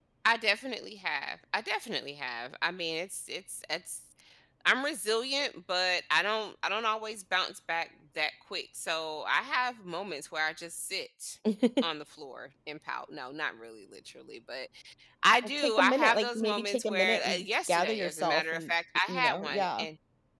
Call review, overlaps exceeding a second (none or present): present